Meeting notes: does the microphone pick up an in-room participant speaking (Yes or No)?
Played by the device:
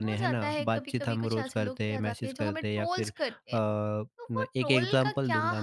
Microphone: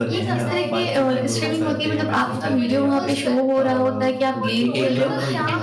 Yes